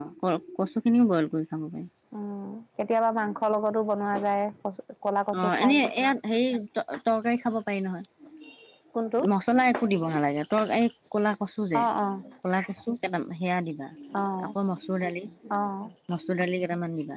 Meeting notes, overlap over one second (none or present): none